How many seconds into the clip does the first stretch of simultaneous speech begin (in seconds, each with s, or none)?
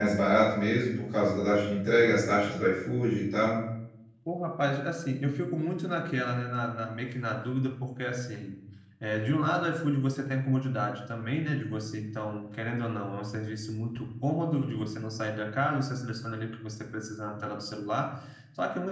none